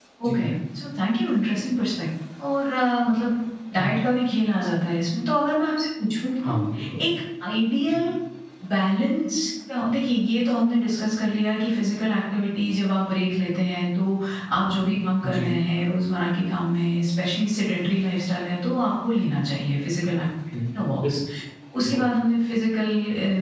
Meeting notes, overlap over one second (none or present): none